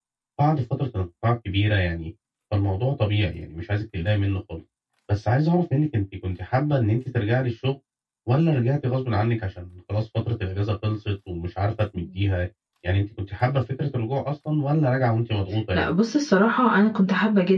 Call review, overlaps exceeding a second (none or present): none